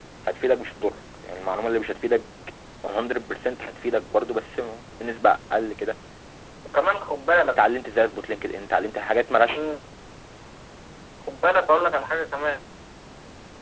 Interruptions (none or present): none